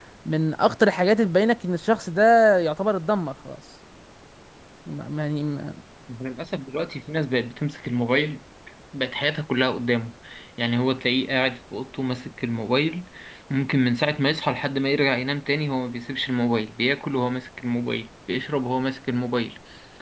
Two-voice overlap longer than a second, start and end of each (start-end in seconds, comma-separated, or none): none